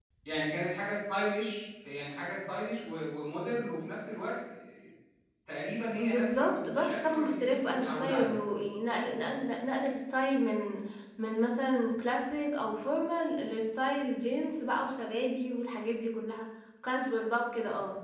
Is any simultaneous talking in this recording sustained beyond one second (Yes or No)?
Yes